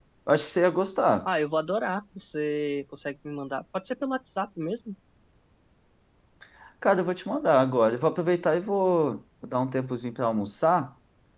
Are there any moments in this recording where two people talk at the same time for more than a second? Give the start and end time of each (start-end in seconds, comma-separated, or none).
none